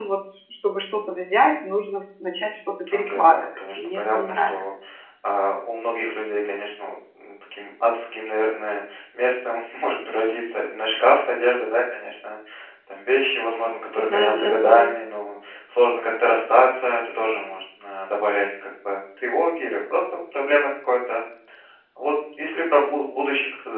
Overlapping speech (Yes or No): Yes